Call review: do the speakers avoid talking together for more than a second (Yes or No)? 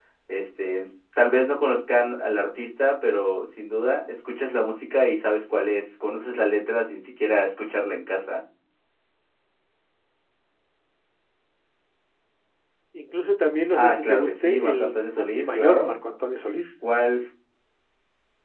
No